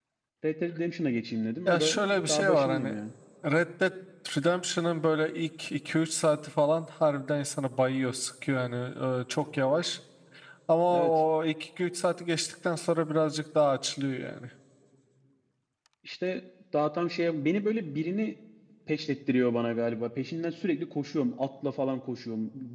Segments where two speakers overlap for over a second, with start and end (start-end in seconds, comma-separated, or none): 1.6-3.0